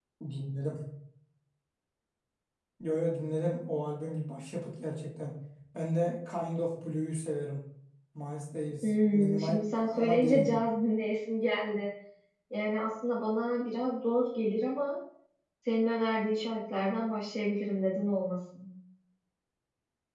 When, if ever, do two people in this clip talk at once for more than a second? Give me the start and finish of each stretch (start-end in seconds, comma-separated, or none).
8.8-10.5